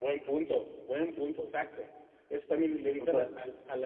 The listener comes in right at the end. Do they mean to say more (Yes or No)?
No